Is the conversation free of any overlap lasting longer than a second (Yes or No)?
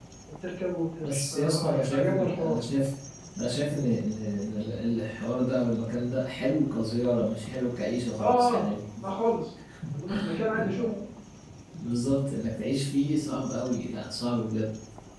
No